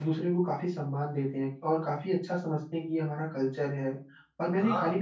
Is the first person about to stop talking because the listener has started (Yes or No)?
No